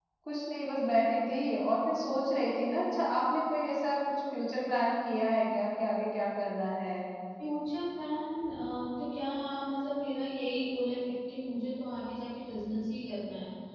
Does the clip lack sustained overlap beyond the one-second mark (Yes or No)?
Yes